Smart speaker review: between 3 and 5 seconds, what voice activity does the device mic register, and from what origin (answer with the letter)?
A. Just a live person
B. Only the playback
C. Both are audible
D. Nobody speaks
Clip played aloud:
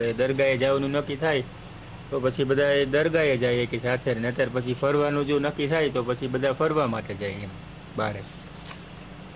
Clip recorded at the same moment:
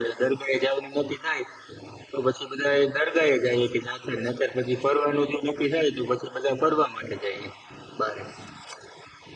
B